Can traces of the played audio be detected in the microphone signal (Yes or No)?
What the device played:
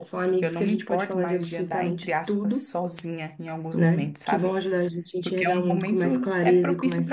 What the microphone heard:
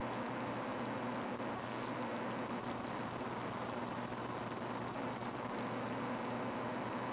No